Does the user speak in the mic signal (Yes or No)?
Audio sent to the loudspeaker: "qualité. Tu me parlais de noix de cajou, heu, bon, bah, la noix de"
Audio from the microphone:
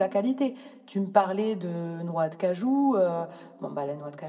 No